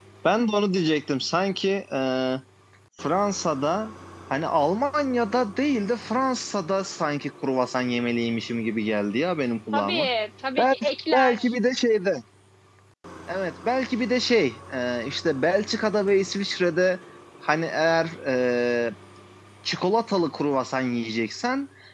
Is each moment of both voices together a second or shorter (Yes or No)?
Yes